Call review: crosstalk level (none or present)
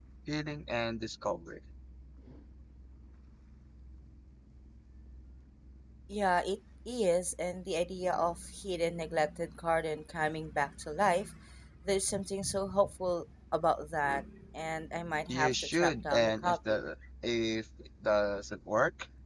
present